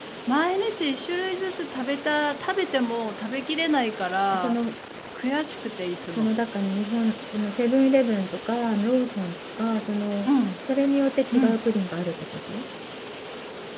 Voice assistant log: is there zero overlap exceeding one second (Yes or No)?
Yes